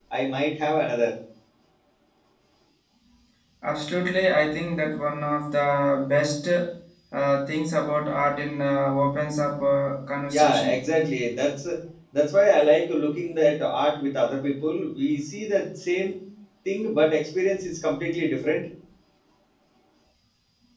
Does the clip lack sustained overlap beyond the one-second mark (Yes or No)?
Yes